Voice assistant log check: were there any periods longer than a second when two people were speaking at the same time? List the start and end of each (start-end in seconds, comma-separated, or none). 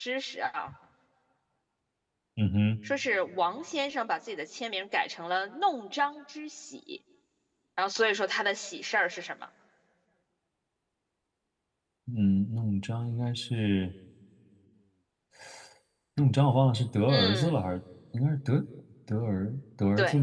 none